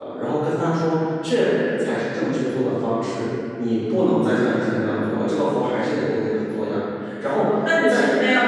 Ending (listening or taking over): taking over